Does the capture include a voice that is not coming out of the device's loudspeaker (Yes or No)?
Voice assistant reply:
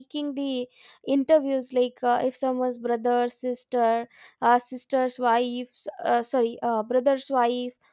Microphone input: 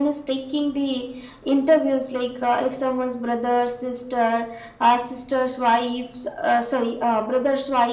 No